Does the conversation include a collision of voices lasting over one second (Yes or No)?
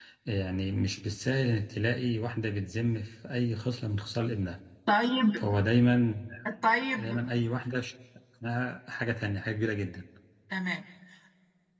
No